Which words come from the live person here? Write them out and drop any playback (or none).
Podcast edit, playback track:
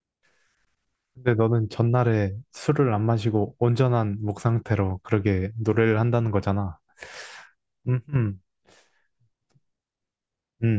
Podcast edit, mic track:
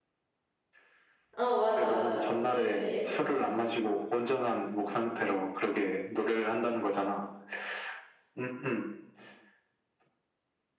어, 맞아, 맞아. 목소리가 되게 예쁘지.